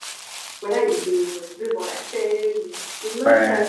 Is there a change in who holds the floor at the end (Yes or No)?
Yes